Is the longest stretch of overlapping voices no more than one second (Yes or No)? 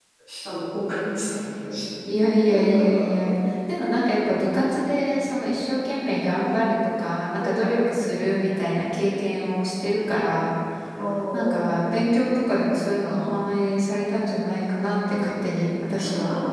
Yes